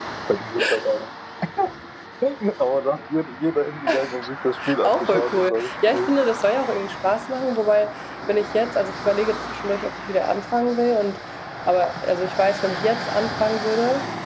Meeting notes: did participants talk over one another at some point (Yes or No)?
Yes